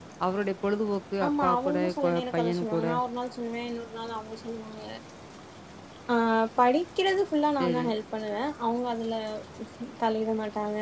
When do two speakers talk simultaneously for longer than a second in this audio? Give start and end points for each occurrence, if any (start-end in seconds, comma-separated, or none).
1.2-2.8